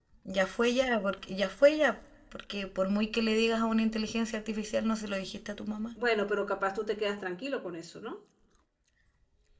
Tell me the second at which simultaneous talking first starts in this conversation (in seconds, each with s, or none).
none